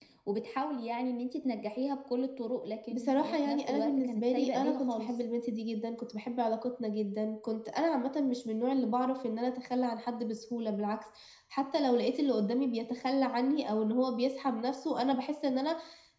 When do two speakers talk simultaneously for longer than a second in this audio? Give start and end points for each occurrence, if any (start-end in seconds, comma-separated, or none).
2.9-5.1